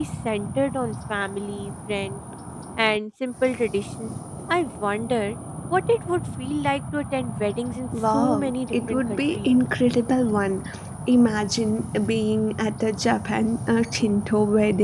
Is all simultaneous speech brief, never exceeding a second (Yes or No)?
No